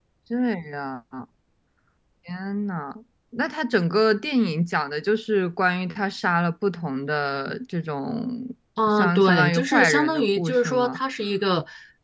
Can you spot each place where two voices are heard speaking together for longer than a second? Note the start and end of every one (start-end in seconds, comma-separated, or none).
8.9-11.0